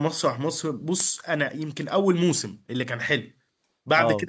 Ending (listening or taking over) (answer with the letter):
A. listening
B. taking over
A